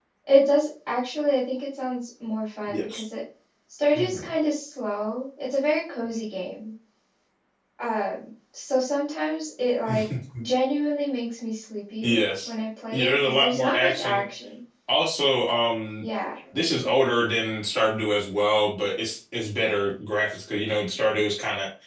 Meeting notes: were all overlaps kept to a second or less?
No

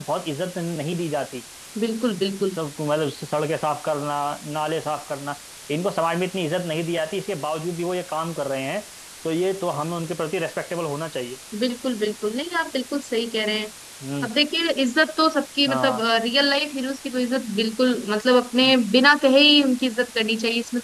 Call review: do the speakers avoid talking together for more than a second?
Yes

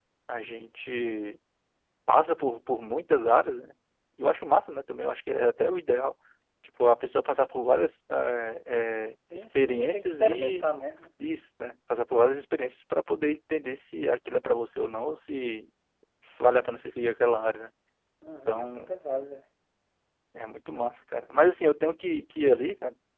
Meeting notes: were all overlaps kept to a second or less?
No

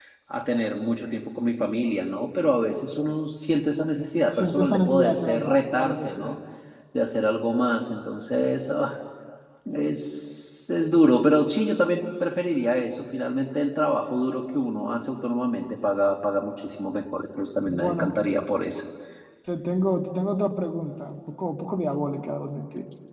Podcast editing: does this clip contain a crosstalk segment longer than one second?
Yes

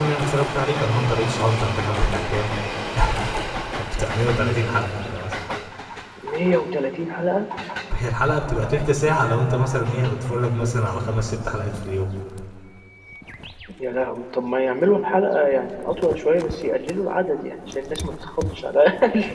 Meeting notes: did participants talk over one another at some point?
No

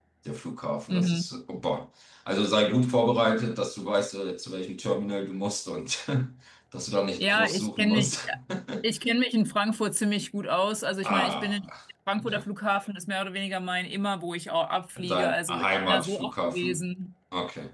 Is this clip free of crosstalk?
No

